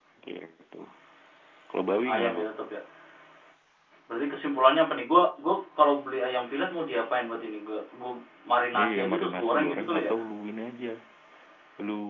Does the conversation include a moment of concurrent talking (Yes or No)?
Yes